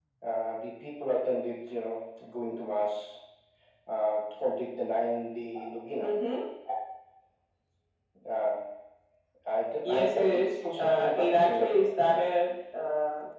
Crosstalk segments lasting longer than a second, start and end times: 9.8-11.9

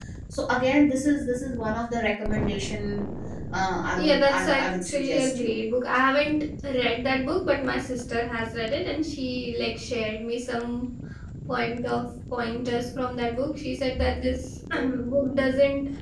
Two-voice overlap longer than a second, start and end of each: 3.9-5.6

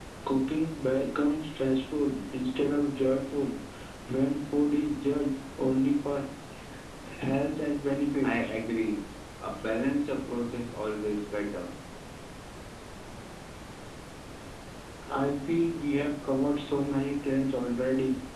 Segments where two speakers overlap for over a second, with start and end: none

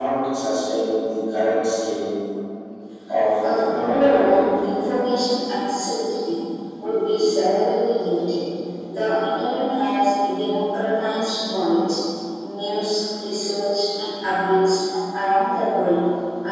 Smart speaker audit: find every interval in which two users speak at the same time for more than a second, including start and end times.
3.5-4.7

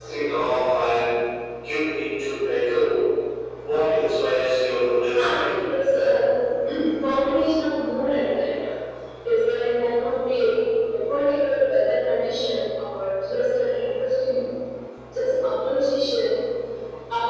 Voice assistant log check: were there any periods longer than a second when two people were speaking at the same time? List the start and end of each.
none

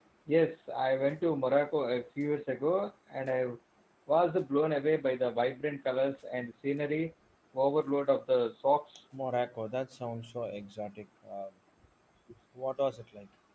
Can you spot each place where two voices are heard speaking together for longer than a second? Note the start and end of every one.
none

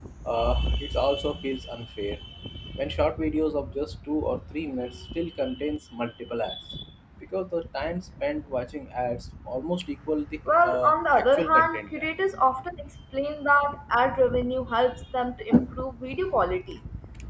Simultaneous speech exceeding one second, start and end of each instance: 10.6-12.1

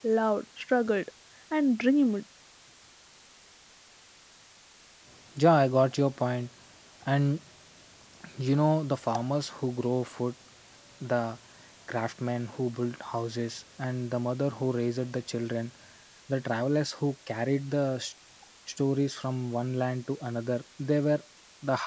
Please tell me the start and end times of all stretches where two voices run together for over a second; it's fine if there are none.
none

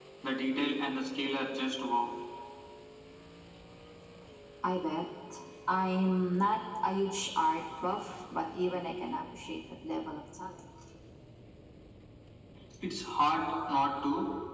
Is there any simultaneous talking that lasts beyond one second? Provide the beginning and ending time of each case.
none

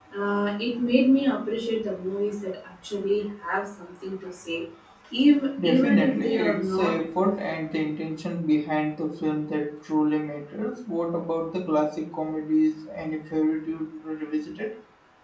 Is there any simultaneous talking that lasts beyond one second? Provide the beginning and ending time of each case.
5.6-7.3

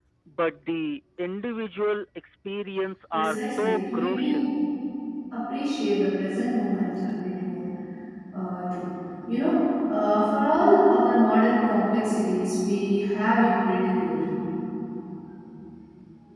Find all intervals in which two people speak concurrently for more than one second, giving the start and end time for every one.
3.1-4.4

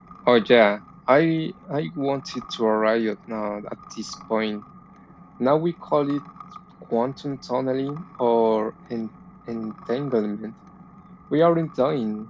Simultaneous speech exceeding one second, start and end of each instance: none

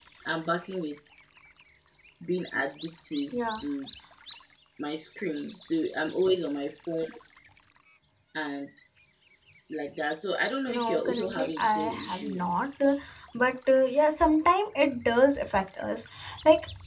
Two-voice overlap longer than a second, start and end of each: 10.7-12.5

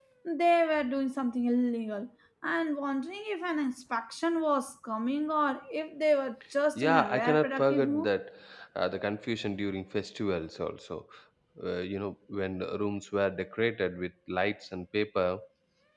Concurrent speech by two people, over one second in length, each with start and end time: 6.8-8.1

